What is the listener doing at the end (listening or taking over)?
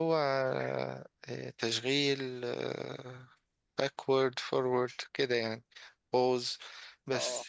listening